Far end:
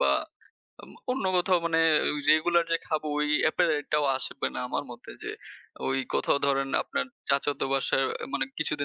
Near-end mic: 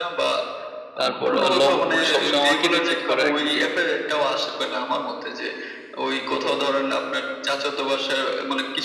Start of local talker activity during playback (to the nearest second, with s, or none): 1 s